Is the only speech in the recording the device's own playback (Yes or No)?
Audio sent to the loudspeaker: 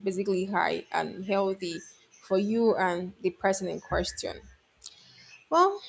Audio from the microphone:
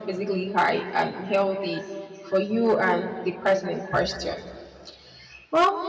Yes